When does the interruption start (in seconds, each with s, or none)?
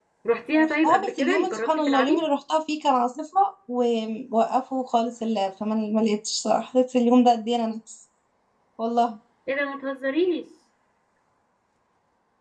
0.6 s